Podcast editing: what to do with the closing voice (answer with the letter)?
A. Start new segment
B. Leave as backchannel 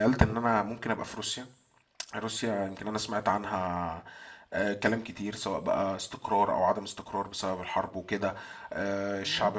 B